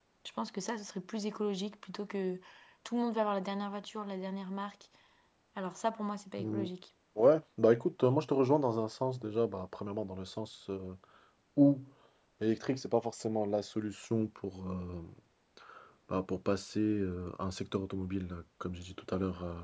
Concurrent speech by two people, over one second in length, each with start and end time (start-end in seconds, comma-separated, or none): none